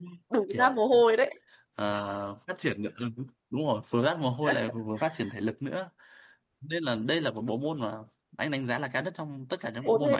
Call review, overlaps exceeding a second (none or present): none